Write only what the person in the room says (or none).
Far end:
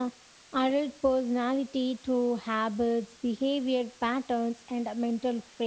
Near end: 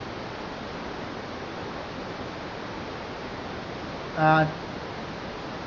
and